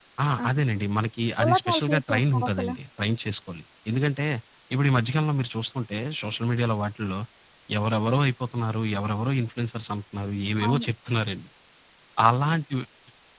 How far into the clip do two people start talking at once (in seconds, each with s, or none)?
1.4 s